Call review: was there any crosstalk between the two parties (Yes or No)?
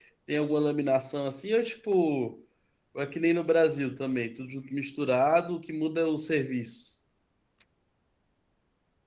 No